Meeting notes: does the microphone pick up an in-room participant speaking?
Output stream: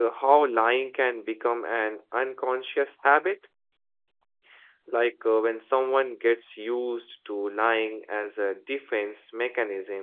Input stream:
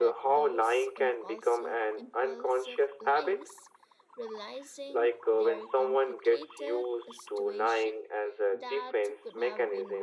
Yes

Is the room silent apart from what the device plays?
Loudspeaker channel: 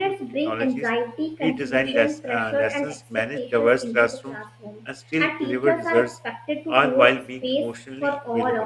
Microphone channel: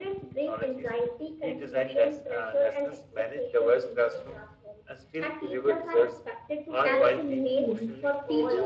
No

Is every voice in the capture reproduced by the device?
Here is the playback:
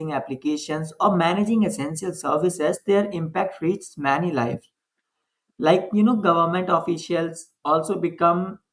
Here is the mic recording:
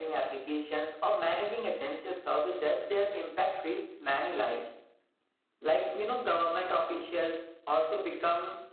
Yes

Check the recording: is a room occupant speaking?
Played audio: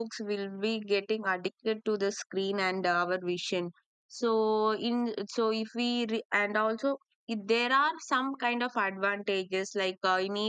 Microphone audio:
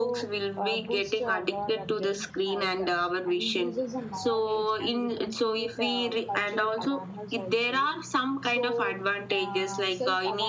Yes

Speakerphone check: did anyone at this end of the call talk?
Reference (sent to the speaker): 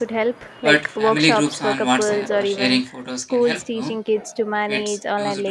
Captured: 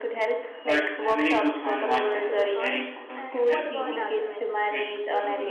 Yes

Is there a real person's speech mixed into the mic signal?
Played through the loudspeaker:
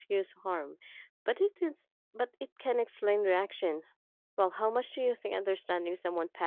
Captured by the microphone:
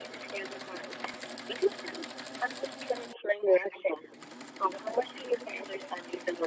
No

